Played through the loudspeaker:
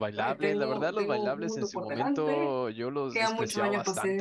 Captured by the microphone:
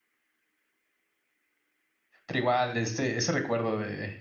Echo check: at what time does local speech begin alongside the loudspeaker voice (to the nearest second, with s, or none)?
2 s